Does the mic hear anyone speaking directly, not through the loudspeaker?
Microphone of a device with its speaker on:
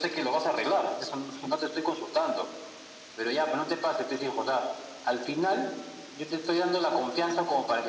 No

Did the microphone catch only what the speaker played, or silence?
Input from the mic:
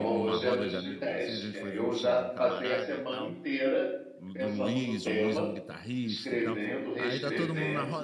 No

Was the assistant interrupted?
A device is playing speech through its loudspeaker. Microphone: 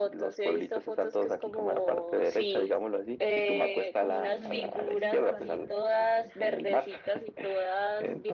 Yes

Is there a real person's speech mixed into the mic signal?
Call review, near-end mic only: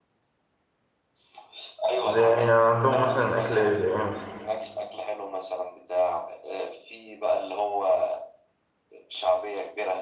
Yes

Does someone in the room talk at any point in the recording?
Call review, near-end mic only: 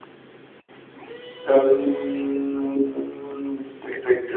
No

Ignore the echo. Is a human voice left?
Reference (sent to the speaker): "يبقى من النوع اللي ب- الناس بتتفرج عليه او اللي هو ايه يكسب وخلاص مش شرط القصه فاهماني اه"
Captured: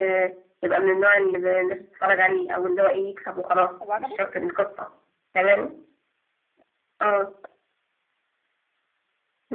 Yes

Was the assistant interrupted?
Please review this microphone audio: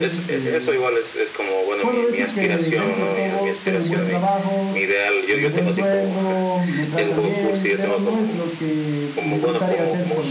Yes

